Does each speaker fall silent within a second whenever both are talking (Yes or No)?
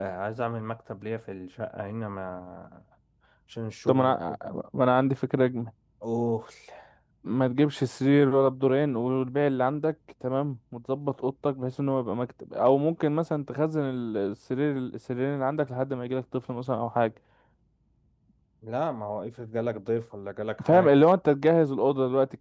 Yes